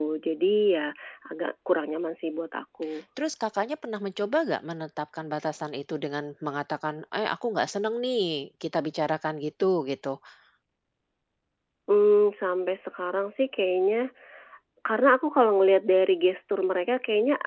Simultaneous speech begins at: none

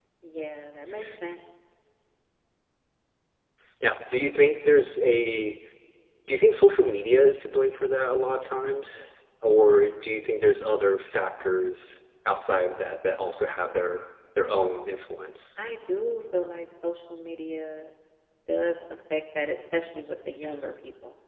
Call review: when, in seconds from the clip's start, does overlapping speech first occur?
none

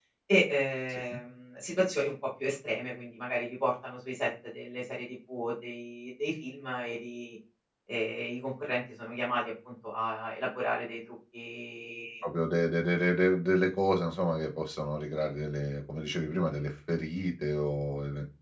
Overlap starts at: none

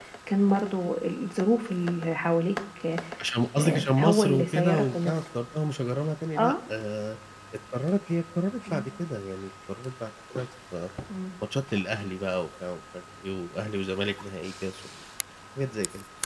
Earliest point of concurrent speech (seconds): 4 s

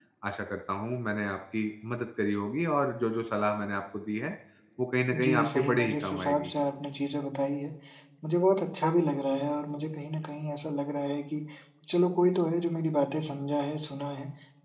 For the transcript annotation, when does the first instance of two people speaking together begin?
5 s

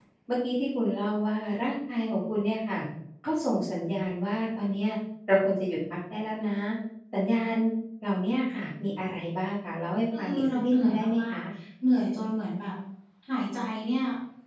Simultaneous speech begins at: 10 s

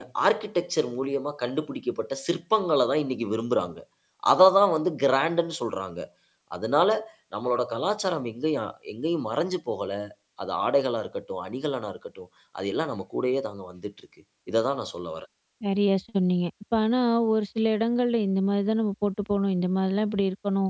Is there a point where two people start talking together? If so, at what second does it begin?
none

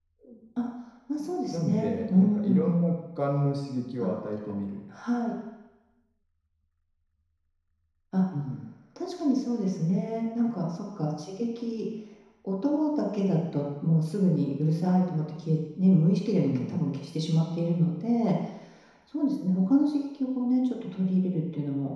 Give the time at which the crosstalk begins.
1 s

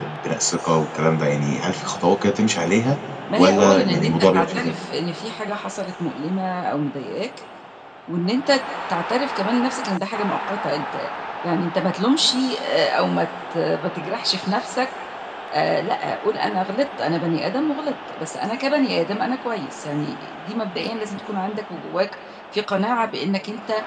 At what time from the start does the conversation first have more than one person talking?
3 s

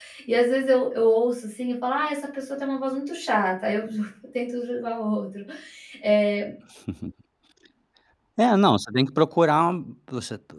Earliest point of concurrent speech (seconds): none

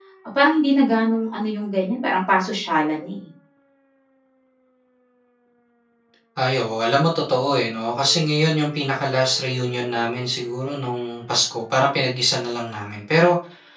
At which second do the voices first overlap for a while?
none

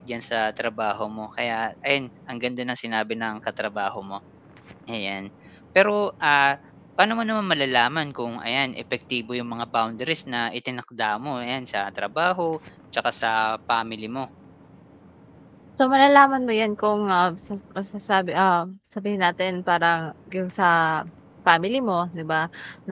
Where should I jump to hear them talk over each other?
none

